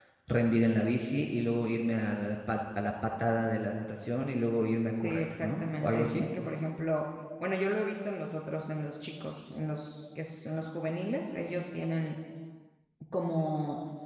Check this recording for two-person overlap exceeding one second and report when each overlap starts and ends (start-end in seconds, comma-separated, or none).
5.0-6.2